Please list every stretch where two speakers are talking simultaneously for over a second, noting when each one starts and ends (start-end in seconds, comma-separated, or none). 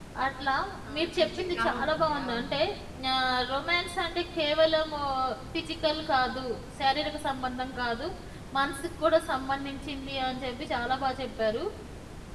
1.0-2.6